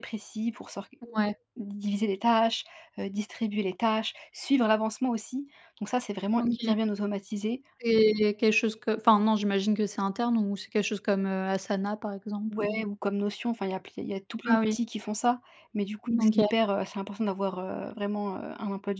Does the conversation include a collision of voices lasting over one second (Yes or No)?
No